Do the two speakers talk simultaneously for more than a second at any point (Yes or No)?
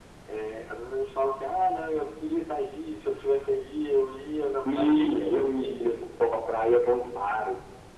Yes